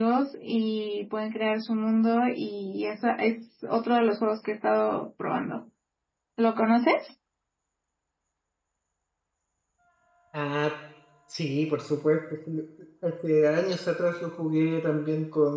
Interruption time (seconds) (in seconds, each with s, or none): none